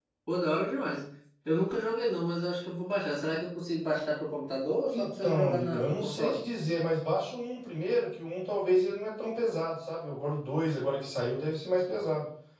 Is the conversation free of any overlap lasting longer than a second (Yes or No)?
No